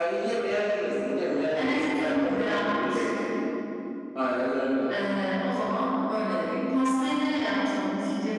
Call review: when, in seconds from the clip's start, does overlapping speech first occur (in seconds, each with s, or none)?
1.5 s